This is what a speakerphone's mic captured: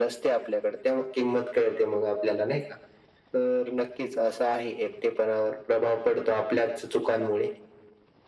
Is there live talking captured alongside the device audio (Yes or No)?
No